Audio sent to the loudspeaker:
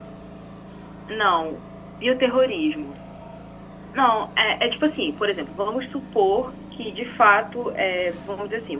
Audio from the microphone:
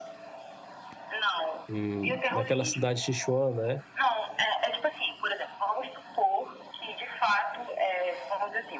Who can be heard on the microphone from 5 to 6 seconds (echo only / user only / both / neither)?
echo only